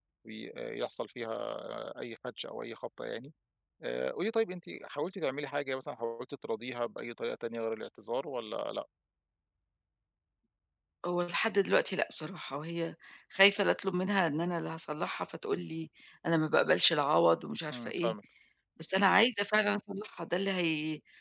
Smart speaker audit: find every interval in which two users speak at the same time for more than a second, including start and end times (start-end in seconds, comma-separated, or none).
none